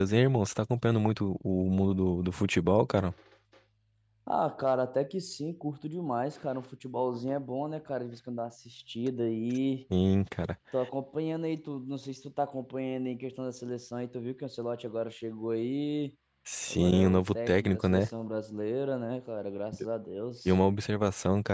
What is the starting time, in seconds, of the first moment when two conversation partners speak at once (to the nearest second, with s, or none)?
17 s